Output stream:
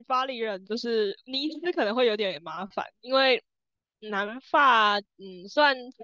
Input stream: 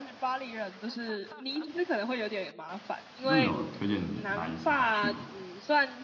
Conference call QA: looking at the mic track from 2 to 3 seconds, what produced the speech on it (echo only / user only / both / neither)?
echo only